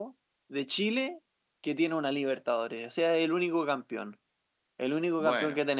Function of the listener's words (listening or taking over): listening